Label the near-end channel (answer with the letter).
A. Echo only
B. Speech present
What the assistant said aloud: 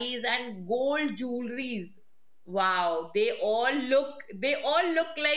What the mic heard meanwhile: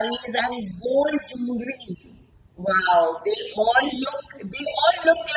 A